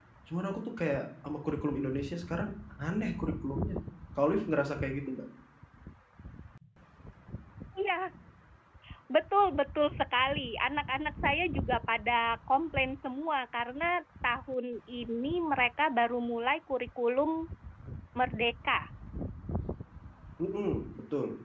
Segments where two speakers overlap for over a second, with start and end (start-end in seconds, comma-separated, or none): none